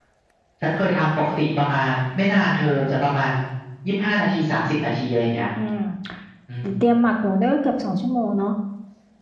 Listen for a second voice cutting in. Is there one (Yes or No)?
No